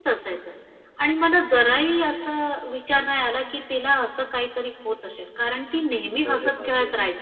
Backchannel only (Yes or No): Yes